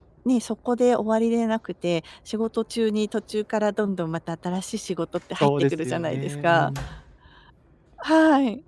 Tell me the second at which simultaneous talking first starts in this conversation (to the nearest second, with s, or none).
5 s